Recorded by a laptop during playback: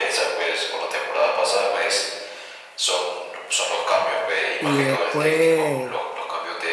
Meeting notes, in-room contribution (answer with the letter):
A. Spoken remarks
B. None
A